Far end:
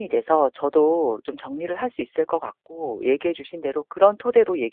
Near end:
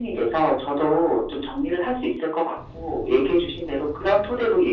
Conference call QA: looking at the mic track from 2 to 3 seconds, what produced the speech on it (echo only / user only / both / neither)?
echo only